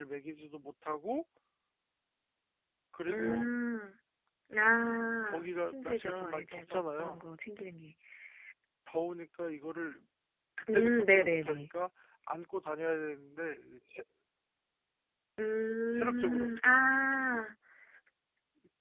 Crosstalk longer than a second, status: present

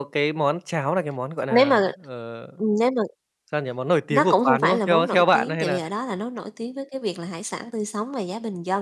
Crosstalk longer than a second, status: present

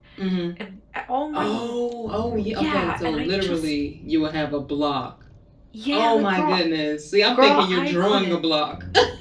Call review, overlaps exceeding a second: present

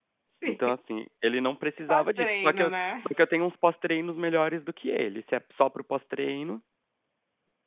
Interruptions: present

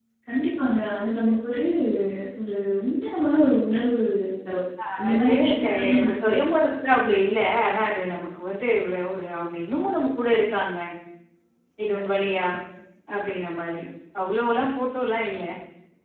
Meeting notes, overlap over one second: present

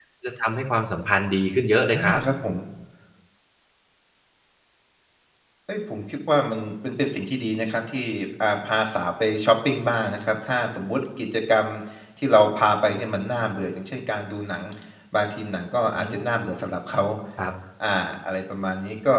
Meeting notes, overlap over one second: none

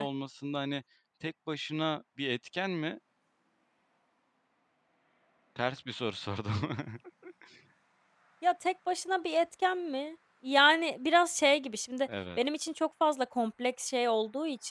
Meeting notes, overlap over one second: none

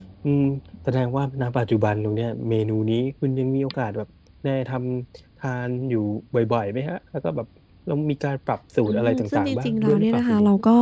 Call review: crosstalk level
present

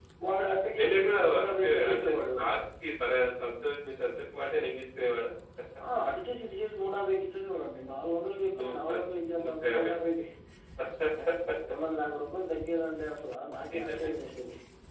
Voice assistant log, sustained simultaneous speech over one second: present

